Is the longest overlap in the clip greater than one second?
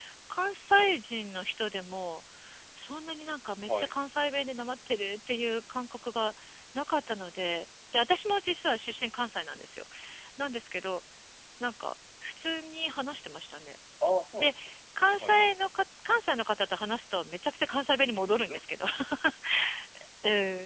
No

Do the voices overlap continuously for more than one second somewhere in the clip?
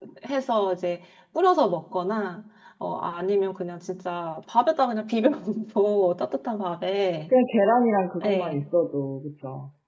No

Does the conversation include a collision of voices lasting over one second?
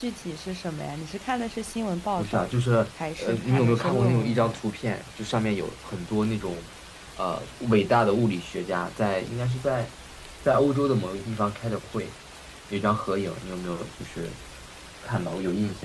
Yes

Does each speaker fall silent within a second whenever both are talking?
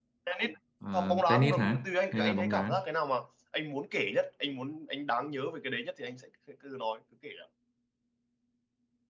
No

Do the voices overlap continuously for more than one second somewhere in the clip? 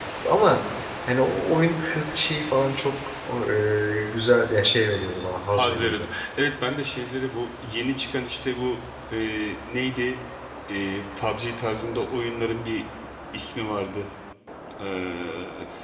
No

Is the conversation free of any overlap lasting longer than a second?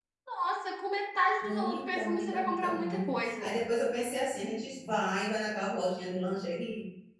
No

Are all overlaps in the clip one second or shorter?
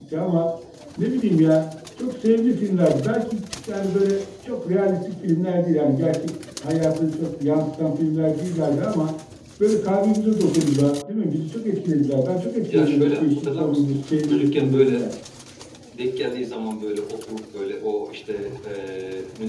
No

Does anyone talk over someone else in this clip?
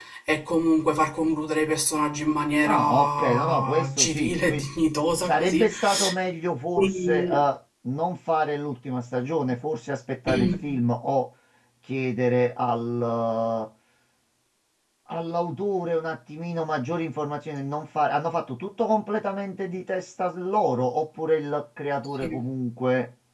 Yes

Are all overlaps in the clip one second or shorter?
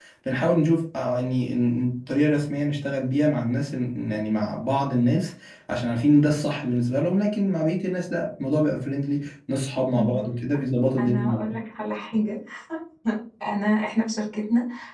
Yes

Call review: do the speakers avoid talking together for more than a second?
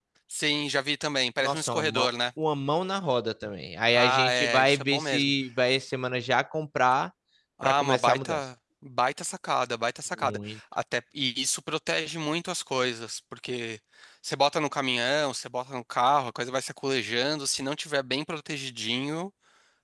No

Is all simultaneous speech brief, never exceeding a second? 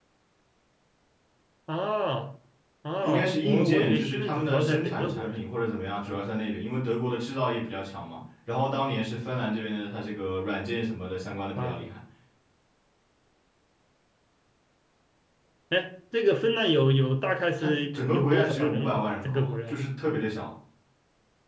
No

